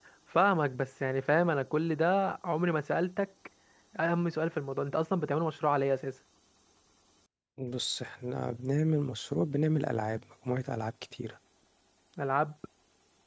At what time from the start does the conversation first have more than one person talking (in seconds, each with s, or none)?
none